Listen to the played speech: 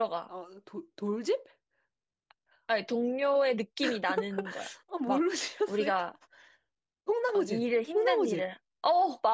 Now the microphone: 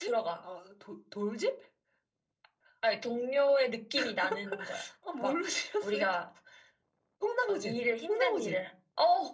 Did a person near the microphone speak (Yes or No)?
No